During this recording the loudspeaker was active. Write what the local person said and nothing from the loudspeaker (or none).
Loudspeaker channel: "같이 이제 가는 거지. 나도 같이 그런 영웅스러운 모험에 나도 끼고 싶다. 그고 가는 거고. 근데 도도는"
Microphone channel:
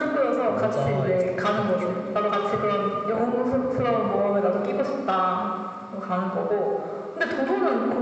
남자, 여자, 어떤 게 더 좋을까?